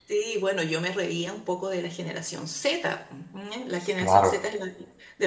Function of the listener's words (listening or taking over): listening